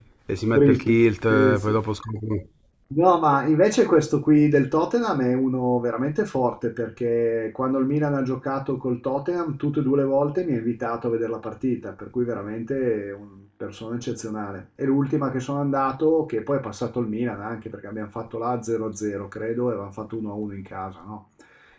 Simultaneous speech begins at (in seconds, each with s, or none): 0.5 s